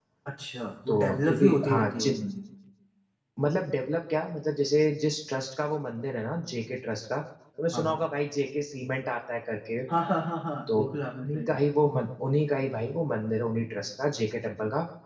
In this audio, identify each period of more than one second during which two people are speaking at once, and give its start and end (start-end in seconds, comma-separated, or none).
0.9-2.1